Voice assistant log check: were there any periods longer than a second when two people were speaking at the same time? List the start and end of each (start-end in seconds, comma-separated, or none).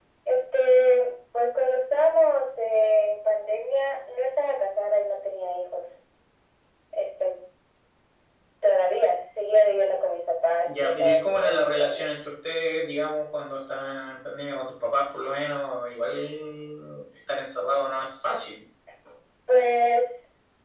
10.6-12.1